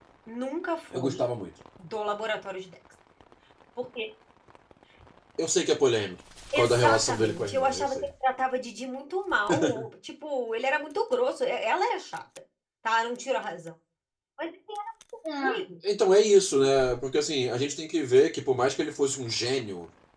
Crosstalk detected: Yes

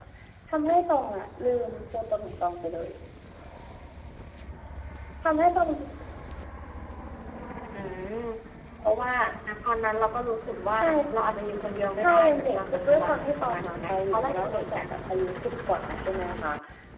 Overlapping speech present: Yes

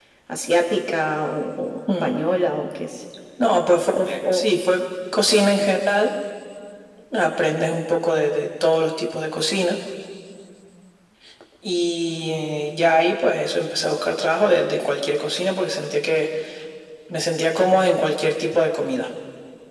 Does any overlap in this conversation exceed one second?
No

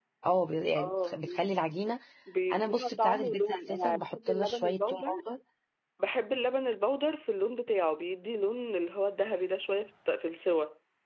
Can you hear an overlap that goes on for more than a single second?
Yes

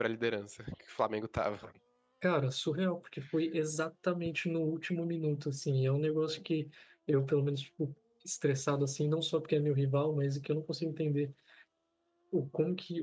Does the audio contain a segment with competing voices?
No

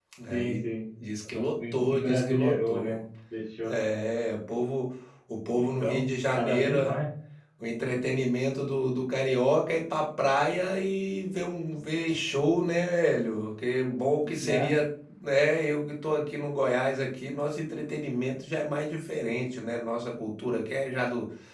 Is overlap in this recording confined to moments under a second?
No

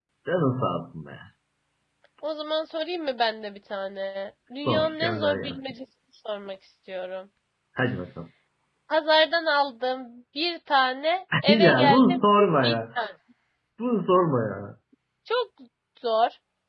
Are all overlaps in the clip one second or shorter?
No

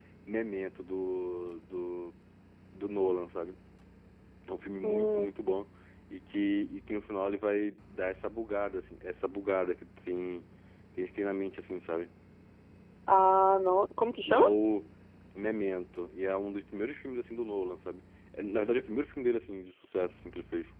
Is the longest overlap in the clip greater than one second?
No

